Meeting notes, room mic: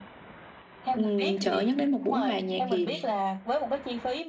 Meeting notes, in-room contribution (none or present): present